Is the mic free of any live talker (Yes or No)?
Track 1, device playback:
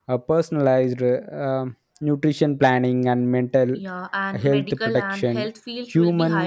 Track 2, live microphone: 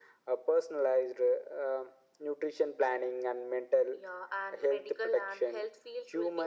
Yes